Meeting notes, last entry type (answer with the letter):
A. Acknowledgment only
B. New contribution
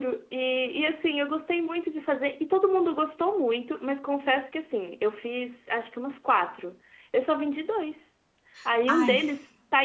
A